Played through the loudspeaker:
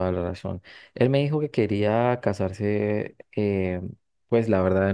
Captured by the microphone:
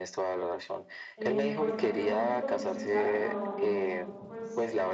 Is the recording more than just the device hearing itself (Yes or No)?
Yes